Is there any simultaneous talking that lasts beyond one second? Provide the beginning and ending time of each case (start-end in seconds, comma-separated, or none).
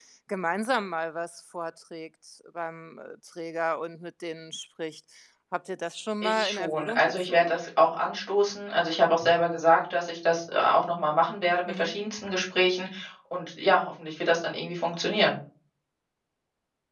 6.2-7.5